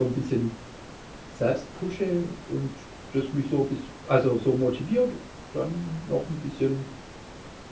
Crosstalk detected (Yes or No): No